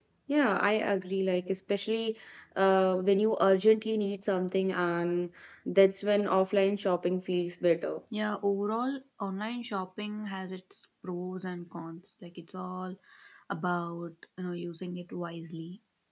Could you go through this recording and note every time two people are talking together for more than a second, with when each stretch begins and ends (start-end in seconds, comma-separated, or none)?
none